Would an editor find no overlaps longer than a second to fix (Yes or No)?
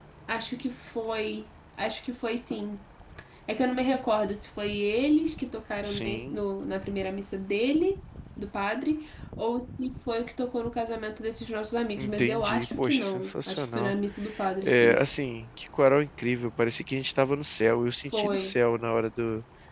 No